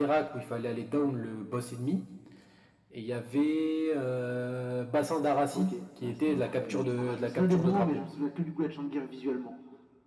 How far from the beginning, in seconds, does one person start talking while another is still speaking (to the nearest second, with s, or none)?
6 s